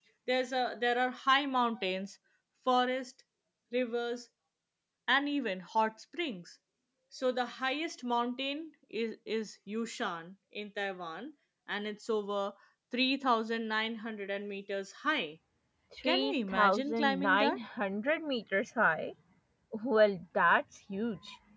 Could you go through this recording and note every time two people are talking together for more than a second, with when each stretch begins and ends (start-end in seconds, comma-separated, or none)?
16.0-17.6